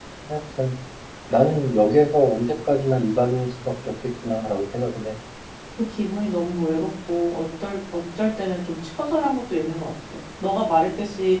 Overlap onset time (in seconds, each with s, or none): none